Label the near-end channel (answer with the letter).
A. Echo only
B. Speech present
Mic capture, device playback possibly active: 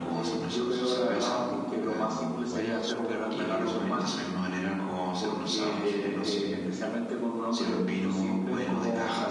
B